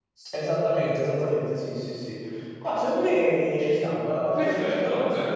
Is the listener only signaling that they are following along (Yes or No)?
No